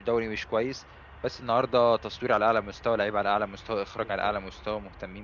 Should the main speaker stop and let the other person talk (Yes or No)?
No